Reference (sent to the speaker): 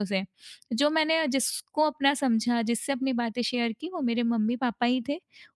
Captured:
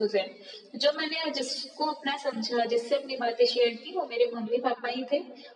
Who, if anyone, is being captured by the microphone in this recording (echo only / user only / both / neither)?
echo only